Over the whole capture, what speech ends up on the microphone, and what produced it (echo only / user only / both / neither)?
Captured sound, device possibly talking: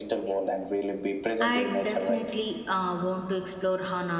both